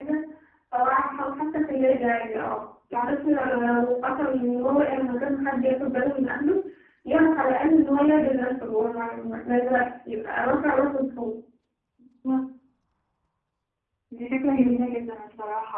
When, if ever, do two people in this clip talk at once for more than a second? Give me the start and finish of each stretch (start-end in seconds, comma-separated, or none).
none